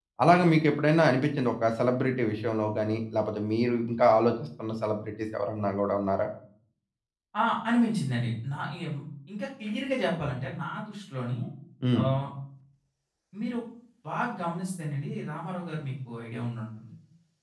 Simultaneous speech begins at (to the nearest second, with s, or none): none